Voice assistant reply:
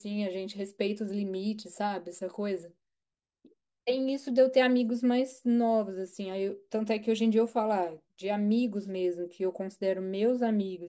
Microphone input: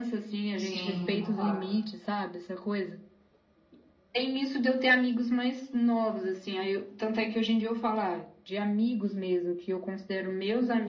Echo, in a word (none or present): present